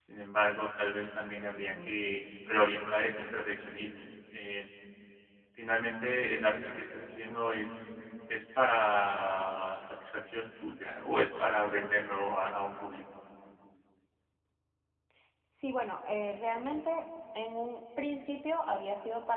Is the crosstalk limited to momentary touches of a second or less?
Yes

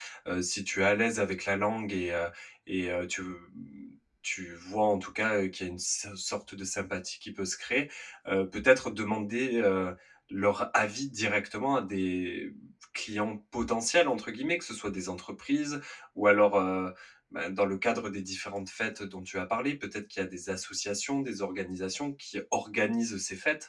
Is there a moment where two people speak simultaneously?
No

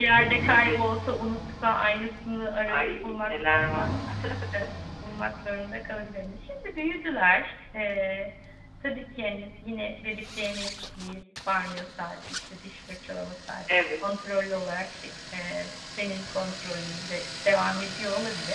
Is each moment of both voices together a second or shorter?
No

